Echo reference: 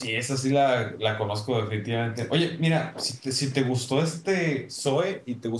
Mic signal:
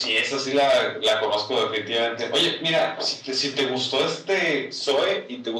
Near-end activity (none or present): none